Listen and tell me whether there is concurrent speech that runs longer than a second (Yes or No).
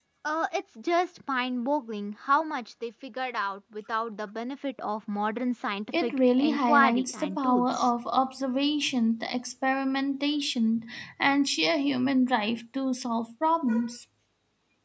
Yes